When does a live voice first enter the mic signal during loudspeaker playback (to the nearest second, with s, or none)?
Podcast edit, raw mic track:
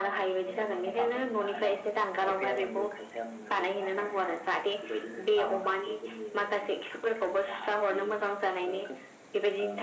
none